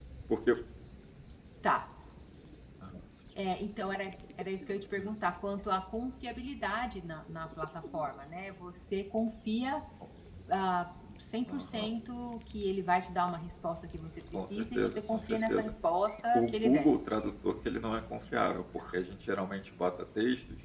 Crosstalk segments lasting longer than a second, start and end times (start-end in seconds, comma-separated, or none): 14.3-15.7